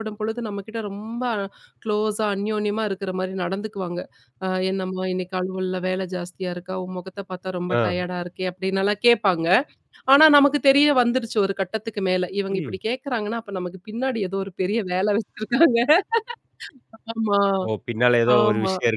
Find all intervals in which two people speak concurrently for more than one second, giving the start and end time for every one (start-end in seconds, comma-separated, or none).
none